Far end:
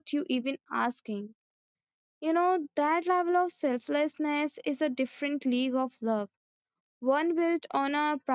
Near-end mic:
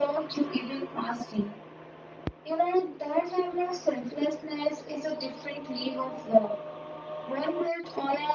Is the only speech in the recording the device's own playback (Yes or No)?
Yes